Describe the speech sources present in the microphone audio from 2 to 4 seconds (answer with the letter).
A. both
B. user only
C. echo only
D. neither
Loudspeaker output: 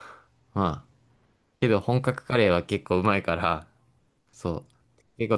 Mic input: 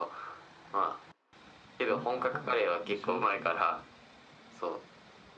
A